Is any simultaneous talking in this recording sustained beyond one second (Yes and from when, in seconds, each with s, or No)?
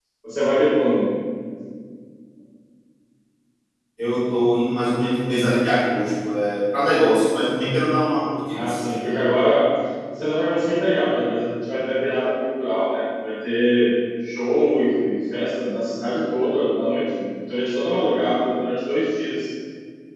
No